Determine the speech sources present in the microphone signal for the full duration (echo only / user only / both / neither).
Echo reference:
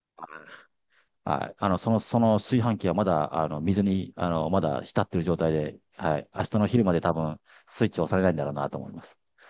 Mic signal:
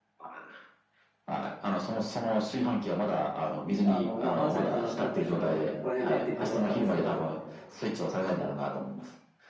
both